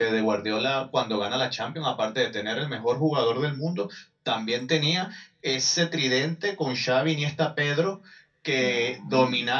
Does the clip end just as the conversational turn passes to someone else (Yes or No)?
No